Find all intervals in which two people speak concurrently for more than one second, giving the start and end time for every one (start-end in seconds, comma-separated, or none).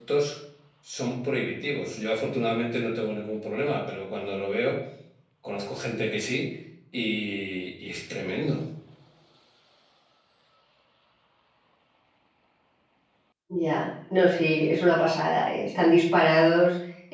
none